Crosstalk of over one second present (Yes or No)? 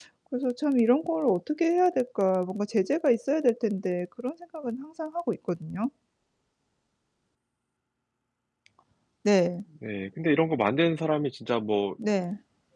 No